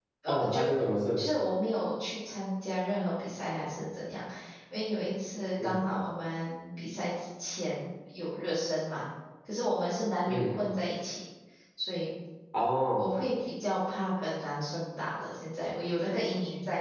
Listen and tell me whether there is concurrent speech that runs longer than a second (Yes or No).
No